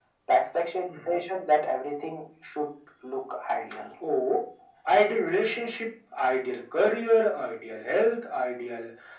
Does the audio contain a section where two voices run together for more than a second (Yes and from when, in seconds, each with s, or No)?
No